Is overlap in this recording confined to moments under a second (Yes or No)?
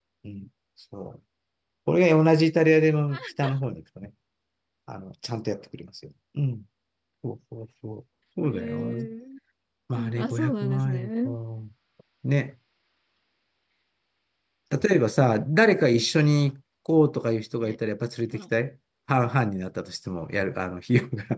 No